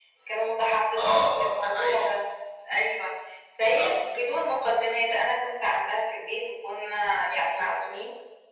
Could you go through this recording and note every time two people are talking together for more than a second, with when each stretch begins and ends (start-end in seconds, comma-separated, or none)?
0.9-2.2